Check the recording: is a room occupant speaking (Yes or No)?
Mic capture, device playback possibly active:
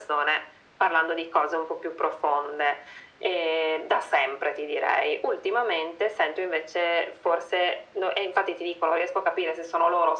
No